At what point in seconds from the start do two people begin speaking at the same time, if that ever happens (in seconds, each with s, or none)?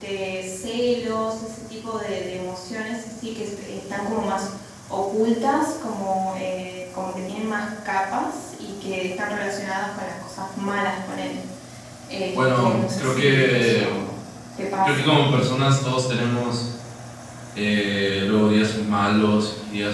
12.3 s